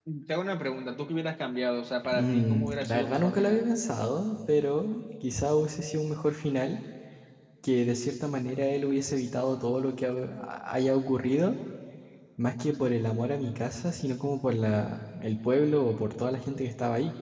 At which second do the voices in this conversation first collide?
2.0 s

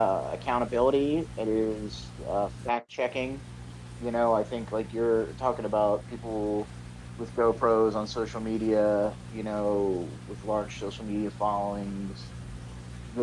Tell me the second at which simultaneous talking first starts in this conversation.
none

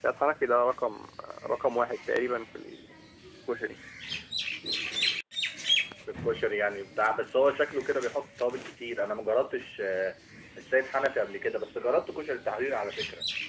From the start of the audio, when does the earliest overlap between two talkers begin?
none

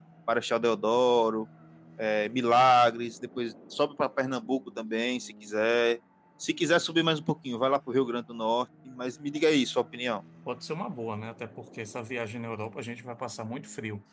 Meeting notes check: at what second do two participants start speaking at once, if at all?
none

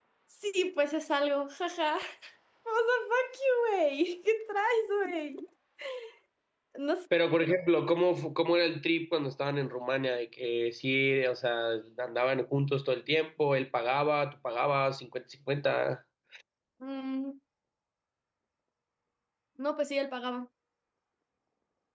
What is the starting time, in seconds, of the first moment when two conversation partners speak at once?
none

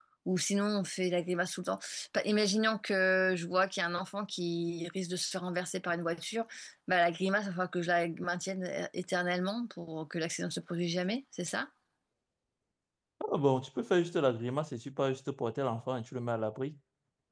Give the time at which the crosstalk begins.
none

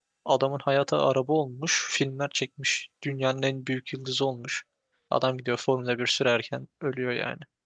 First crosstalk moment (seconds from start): none

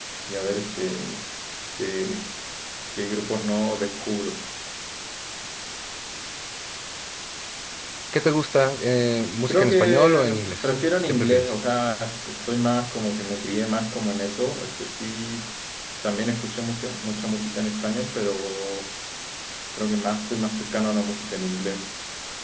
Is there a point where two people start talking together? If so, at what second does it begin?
9.5 s

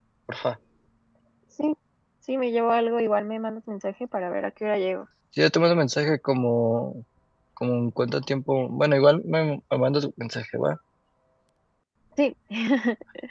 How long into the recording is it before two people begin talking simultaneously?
none

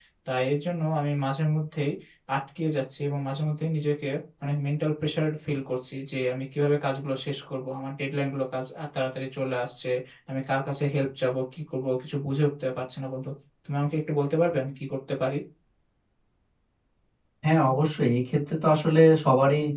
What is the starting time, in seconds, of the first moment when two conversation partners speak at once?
none

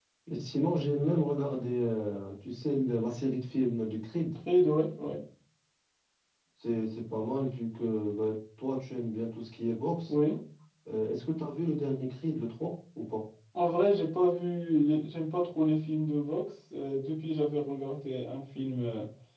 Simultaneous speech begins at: none

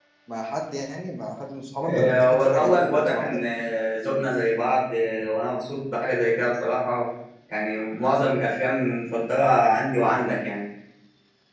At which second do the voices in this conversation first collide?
1.8 s

